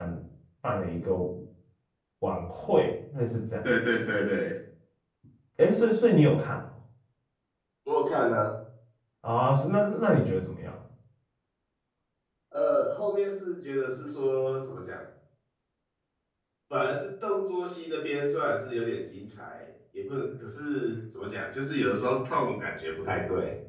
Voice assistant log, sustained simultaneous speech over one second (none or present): none